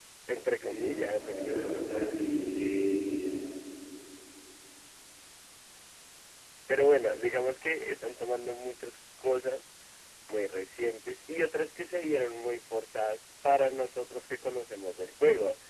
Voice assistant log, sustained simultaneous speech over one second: present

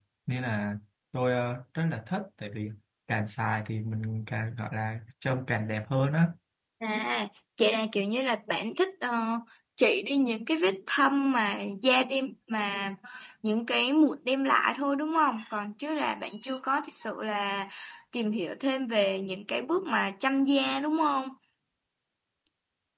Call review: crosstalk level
none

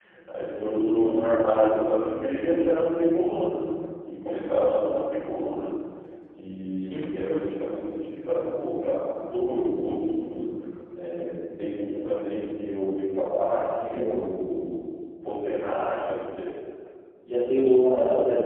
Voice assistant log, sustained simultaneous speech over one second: none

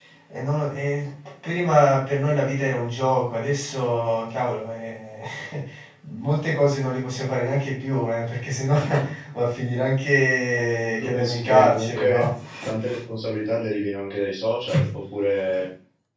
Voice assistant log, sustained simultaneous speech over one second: present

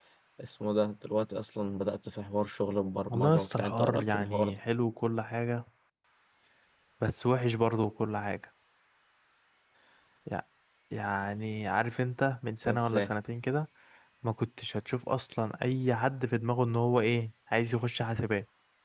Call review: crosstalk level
present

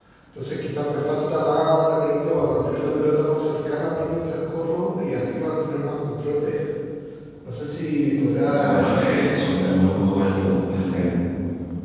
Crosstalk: present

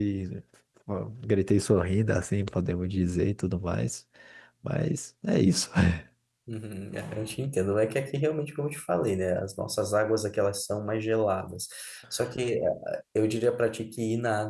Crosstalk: none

